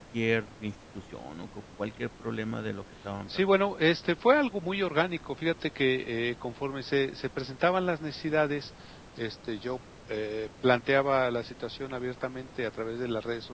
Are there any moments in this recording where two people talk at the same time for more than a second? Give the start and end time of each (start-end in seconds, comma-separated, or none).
none